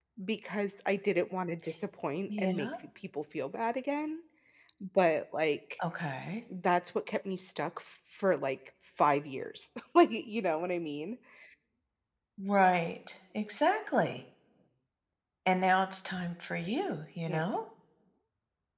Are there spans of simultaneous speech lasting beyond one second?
No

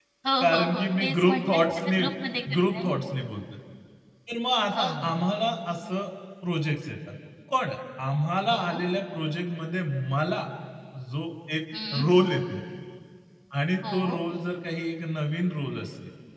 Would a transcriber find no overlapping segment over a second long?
No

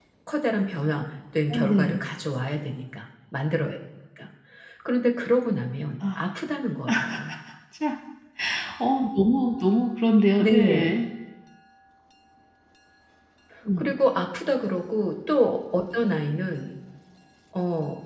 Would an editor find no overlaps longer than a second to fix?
Yes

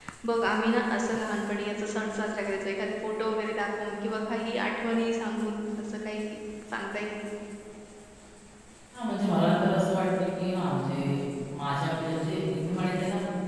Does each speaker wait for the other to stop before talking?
Yes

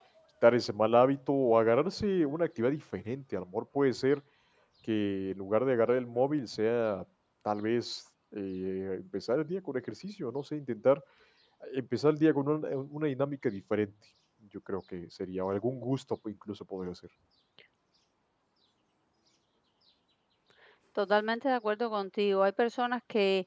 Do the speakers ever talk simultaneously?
No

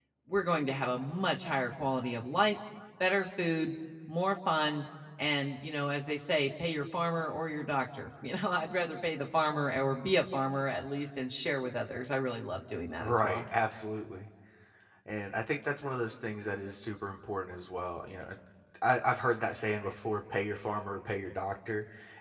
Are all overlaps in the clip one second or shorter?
Yes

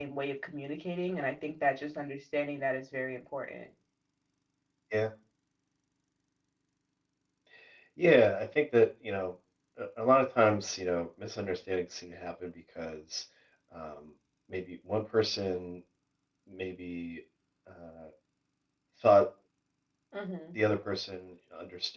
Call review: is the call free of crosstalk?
Yes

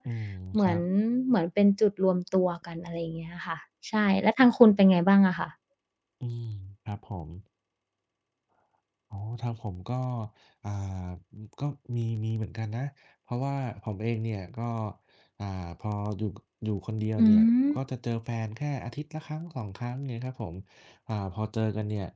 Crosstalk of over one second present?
No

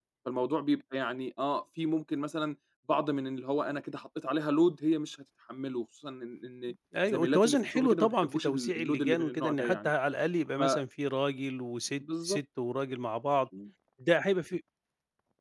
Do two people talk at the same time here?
Yes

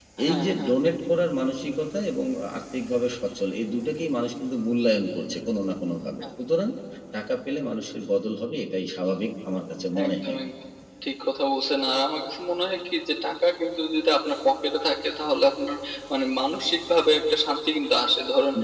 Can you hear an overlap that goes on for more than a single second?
No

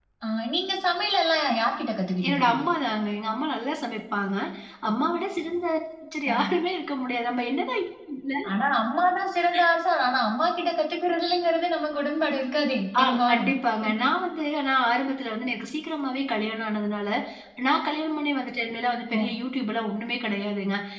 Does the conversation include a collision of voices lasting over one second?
No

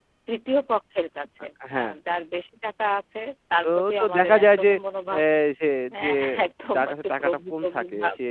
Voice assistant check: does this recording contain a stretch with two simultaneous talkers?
Yes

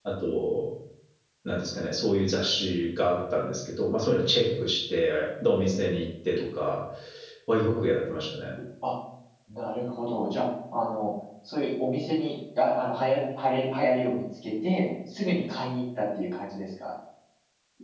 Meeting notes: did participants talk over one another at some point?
No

